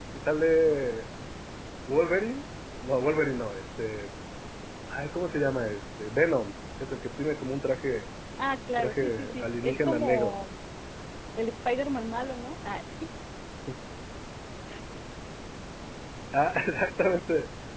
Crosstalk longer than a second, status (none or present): present